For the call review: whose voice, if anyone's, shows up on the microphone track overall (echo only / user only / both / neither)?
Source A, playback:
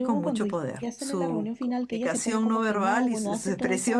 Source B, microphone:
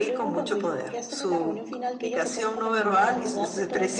both